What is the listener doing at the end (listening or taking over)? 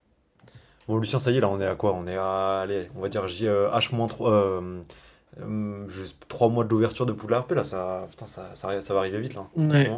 taking over